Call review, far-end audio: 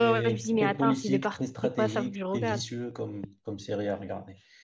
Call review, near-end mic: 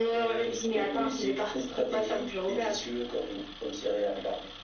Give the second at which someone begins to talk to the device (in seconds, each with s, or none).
none